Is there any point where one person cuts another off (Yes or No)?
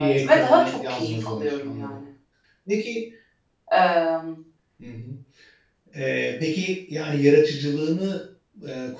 Yes